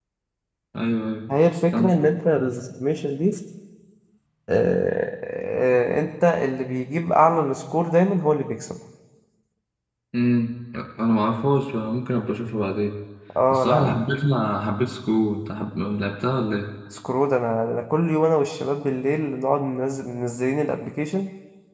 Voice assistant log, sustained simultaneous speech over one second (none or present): none